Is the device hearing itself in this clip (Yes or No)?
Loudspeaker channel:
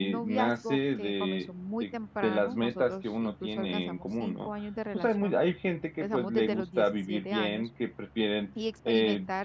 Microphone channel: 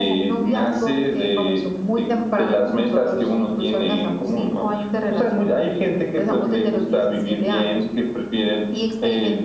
Yes